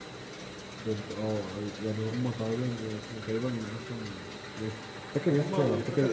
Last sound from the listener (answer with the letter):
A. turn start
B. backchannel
A